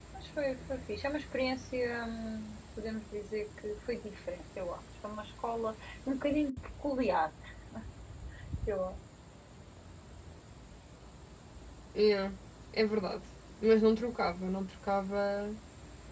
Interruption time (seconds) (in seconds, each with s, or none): none